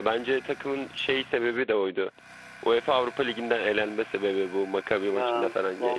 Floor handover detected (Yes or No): Yes